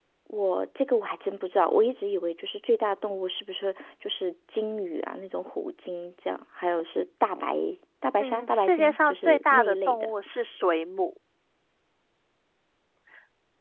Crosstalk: present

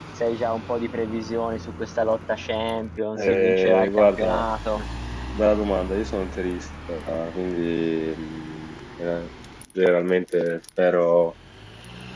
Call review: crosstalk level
present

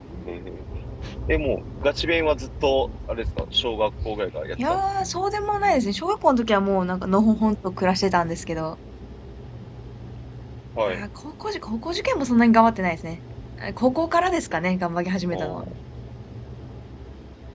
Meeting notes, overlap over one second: none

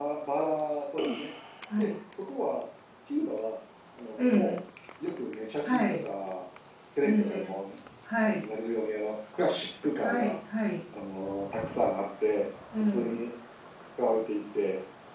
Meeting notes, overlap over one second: none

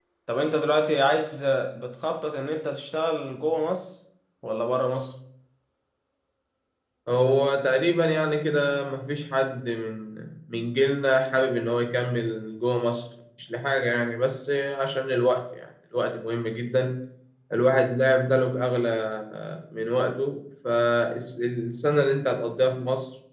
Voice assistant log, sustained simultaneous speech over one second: none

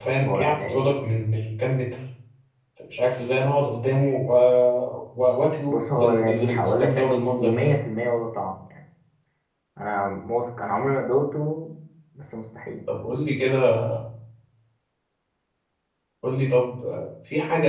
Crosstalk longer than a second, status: present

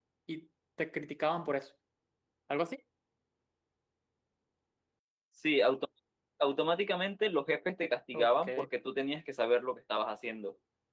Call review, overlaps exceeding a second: none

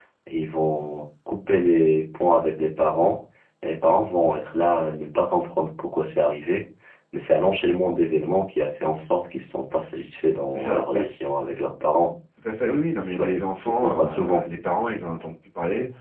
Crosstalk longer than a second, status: present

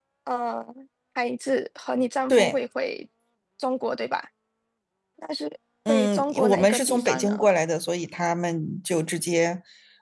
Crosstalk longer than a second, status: present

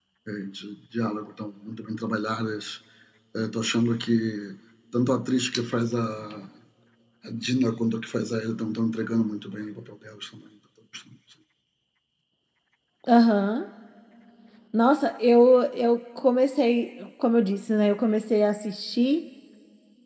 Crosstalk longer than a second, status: none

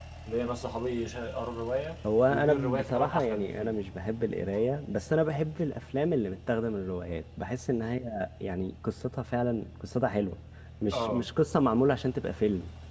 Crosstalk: present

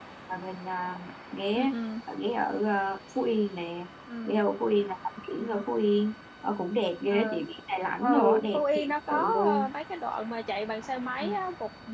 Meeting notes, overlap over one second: present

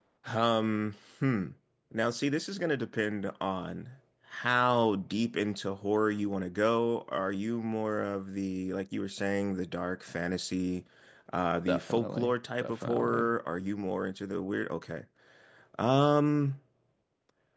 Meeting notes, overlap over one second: present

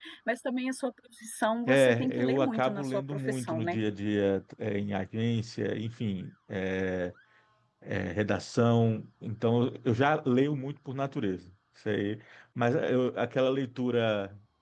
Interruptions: present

